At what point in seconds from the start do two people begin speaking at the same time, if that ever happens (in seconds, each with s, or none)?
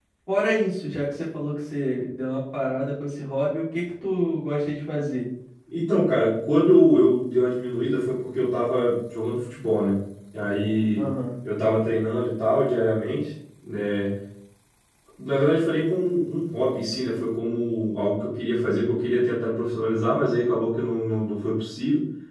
none